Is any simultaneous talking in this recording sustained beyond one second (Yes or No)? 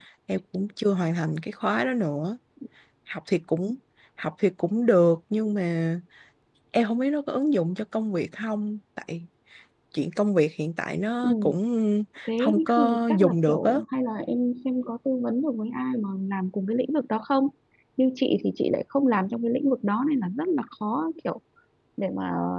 Yes